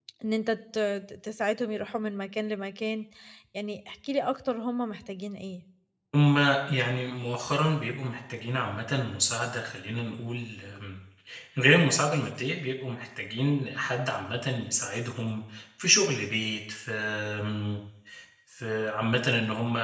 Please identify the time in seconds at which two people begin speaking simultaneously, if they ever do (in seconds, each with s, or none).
none